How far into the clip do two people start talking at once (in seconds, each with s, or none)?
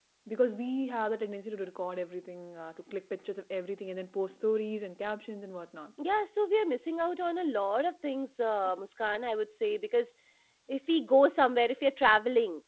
none